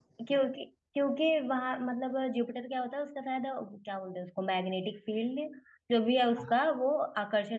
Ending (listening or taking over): listening